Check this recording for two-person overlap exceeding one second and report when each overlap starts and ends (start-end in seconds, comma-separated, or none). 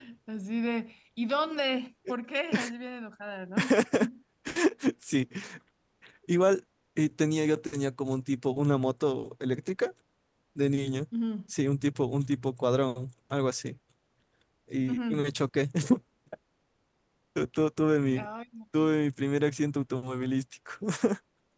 none